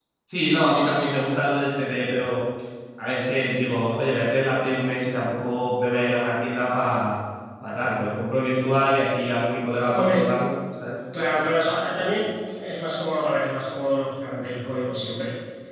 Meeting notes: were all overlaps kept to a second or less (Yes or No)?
Yes